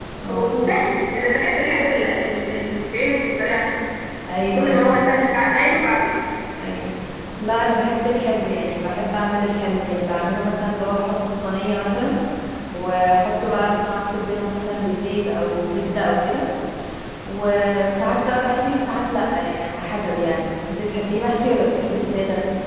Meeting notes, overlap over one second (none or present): none